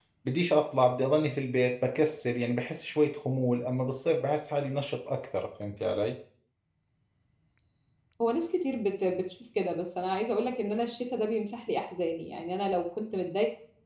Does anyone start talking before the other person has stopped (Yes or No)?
No